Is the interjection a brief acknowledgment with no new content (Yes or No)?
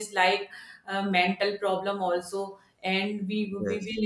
Yes